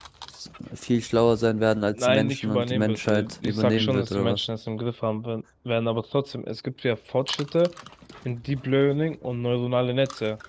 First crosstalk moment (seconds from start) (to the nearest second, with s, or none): 2 s